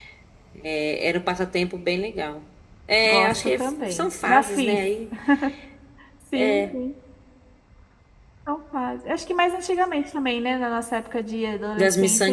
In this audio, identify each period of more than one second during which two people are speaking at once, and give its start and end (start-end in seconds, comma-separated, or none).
3.0-4.9